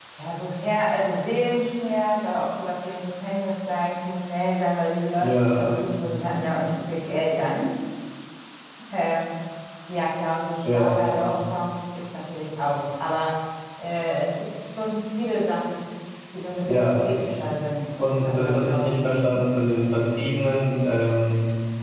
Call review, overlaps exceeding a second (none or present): present